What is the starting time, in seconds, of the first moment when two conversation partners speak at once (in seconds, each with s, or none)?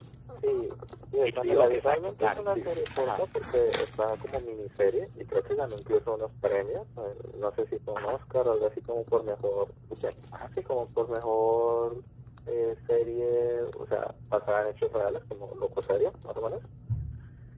1.2 s